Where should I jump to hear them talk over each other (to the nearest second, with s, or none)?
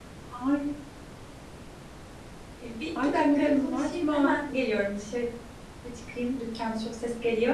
3 s